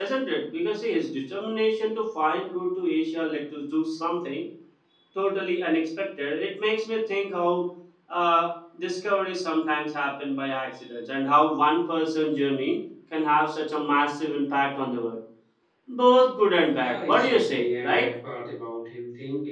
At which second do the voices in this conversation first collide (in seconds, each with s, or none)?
16.8 s